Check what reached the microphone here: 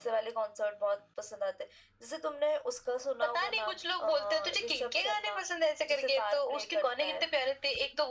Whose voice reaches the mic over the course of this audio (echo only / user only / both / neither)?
echo only